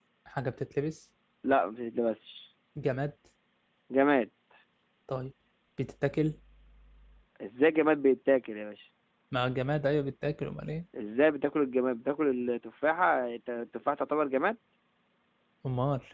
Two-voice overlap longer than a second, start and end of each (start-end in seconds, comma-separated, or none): none